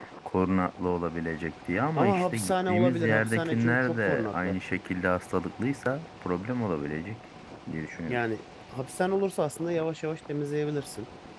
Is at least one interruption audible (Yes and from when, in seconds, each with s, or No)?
Yes, from 2.0 s